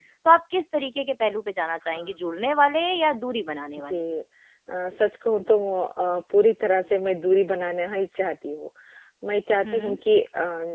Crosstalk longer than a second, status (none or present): none